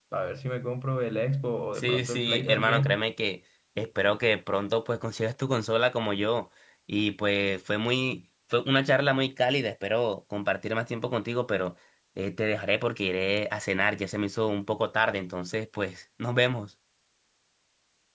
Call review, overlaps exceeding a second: present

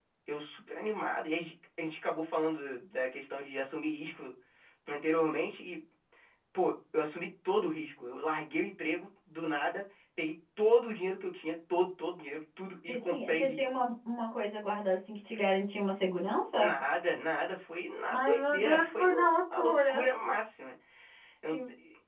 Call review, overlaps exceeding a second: present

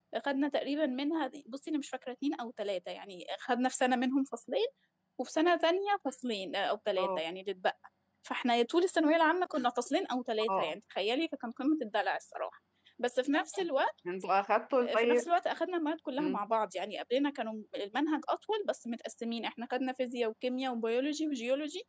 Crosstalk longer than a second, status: none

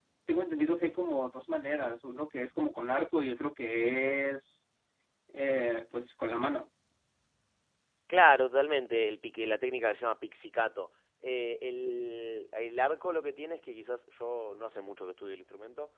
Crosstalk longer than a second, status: none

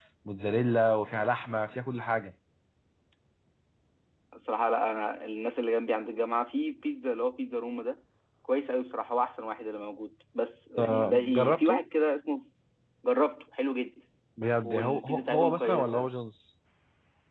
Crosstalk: present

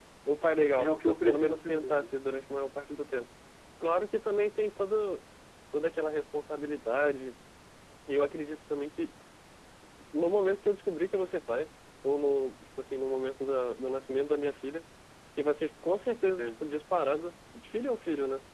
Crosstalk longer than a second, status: present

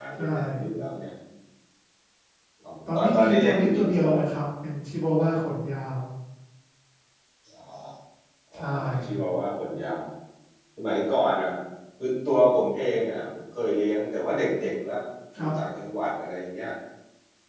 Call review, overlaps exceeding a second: present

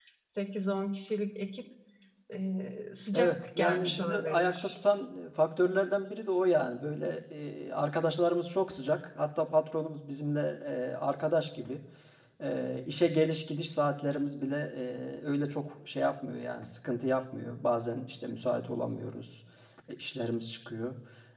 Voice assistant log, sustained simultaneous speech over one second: present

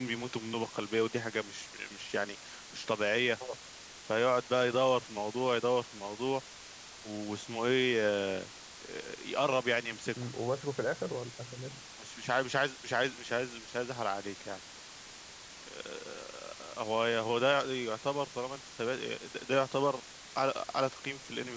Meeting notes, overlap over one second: none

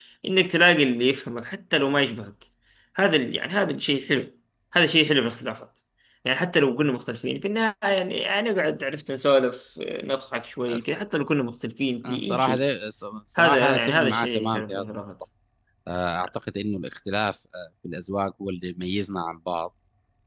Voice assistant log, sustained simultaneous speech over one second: present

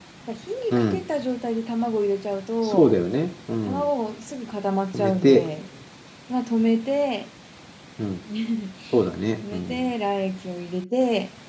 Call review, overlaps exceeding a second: none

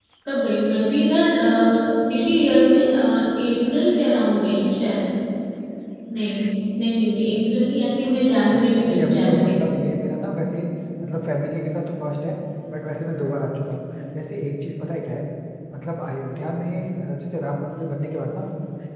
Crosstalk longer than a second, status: present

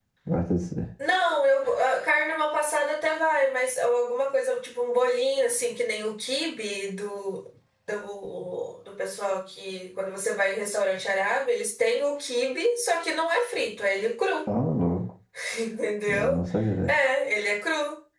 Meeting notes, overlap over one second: none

